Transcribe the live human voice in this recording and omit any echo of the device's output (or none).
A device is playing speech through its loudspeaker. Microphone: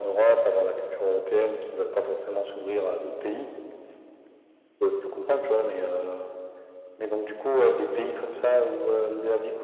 none